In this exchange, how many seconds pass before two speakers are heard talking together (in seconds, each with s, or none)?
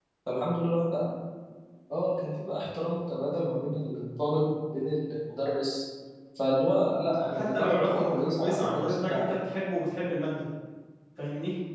7.3 s